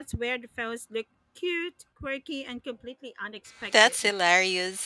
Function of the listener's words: taking over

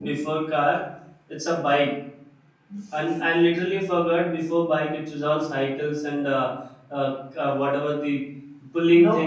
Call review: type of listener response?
listening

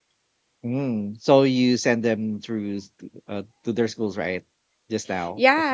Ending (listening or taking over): taking over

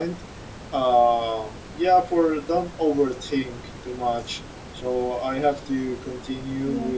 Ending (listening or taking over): listening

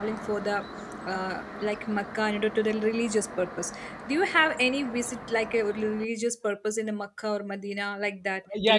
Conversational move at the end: taking over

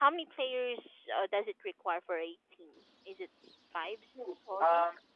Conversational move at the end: taking over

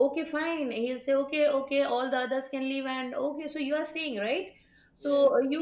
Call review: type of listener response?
listening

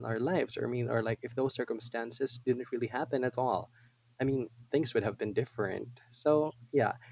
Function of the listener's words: listening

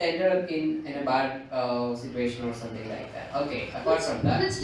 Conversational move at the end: taking over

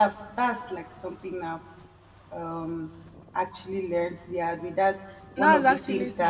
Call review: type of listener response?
taking over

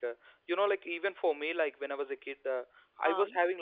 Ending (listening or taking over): listening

